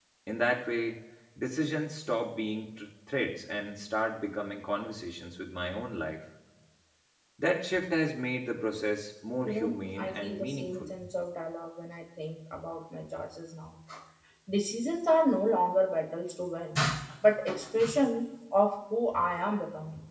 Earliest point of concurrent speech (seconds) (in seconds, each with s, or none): 9.5 s